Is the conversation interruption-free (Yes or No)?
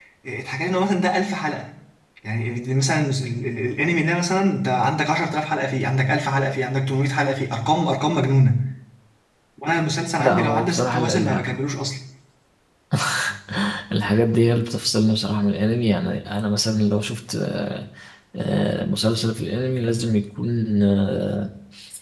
No